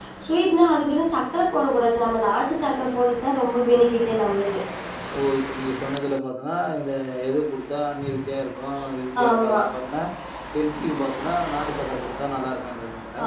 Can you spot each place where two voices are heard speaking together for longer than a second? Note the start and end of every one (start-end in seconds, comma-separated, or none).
none